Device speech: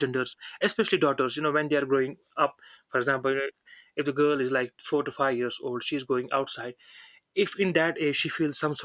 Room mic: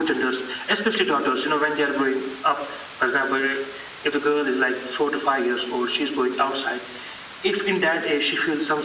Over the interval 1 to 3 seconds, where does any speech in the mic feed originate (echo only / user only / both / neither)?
echo only